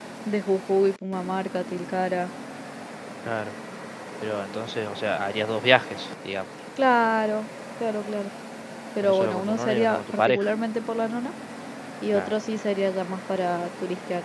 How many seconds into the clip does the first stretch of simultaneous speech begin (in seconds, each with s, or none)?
9.0 s